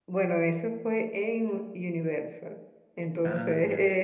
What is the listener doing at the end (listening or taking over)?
listening